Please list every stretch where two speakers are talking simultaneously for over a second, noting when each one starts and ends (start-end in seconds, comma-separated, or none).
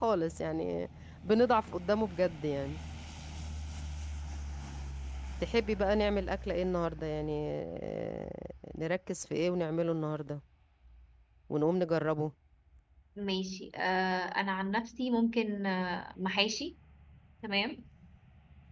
none